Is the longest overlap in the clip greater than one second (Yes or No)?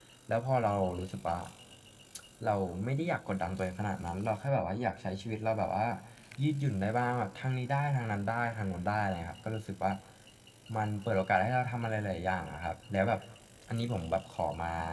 No